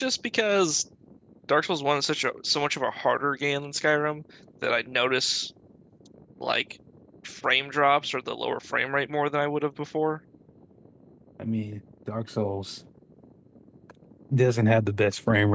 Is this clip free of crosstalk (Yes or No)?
Yes